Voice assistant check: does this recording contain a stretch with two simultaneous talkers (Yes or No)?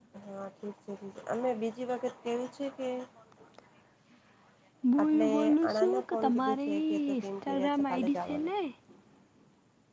Yes